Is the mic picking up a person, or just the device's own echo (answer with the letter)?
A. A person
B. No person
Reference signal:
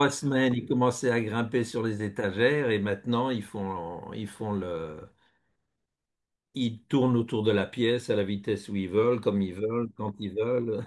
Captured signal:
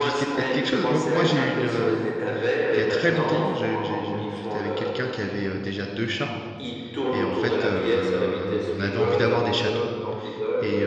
A